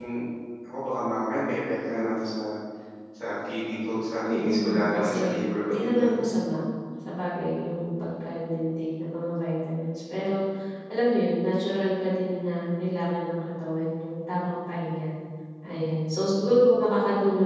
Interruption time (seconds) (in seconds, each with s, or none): 4.2 s